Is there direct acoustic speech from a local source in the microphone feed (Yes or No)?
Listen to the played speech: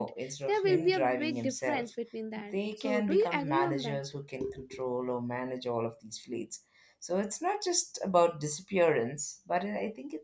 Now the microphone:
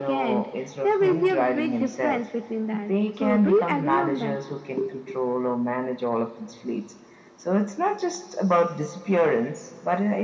No